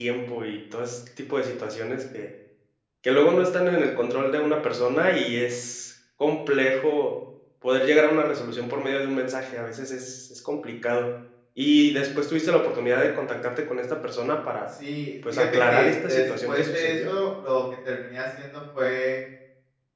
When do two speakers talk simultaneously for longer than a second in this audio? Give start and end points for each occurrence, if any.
15.3-17.1

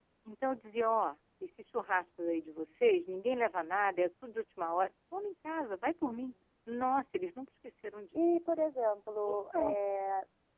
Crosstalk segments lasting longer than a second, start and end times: none

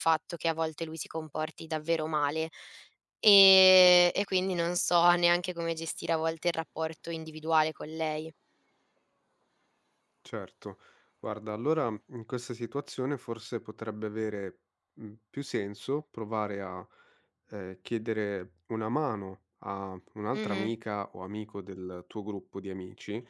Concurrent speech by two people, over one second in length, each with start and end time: none

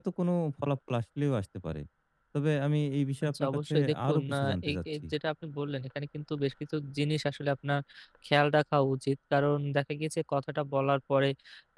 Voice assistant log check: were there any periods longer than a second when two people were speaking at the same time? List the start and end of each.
3.2-5.1

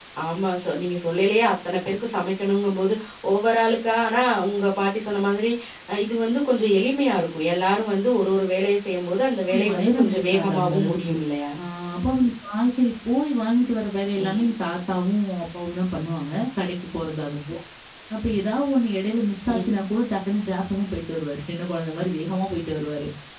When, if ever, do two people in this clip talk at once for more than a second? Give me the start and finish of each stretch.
9.5-11.1

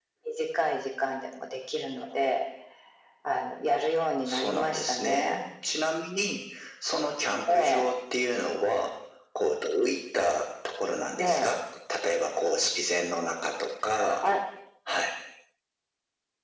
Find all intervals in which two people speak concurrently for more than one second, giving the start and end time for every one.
4.3-5.5

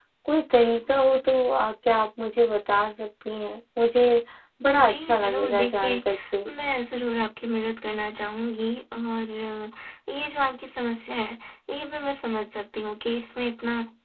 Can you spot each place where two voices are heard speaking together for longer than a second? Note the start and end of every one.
4.8-6.0

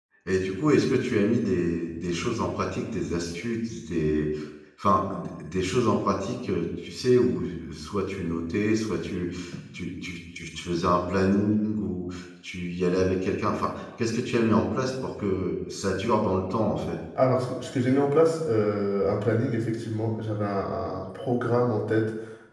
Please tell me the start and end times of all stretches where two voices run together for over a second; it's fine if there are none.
none

